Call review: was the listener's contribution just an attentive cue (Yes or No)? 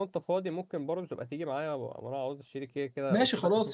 No